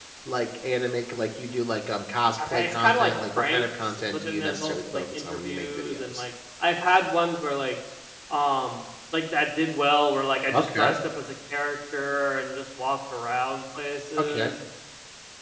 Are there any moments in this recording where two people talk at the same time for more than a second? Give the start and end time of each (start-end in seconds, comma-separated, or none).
2.5-6.2